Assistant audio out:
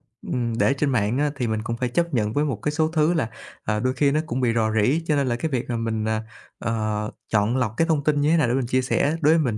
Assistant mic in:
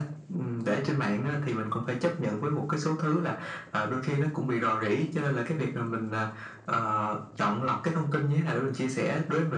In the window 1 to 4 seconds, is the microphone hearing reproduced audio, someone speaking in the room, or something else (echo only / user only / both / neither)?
echo only